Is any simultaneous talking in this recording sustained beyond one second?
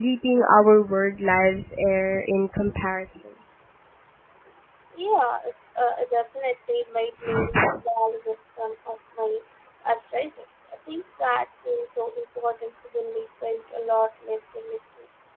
No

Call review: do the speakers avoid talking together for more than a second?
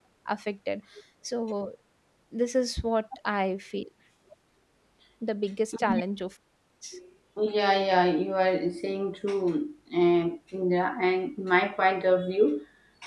Yes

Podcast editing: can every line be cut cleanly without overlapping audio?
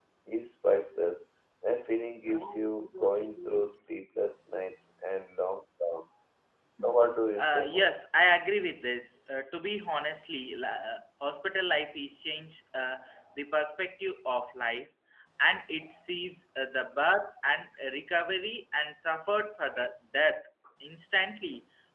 No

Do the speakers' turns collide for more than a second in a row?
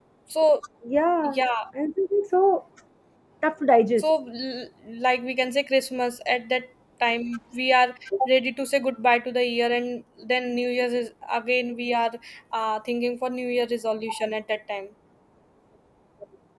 No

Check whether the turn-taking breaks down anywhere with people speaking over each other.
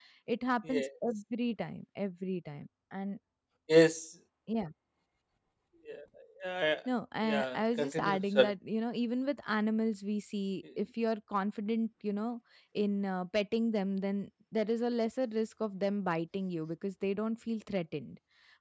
Yes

